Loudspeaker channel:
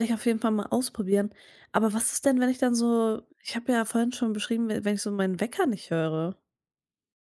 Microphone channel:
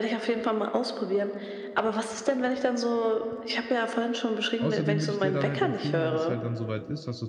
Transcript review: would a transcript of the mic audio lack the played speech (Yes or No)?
No